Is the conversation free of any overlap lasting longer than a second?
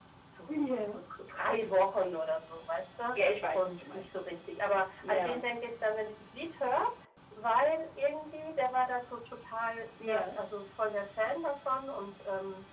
Yes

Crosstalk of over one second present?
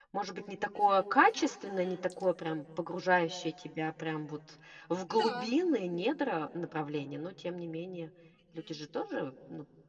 Yes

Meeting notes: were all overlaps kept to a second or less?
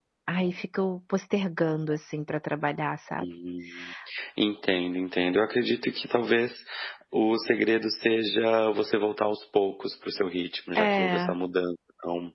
Yes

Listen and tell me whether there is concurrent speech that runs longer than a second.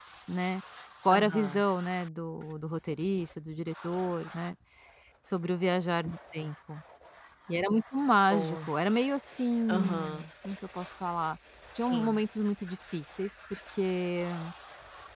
No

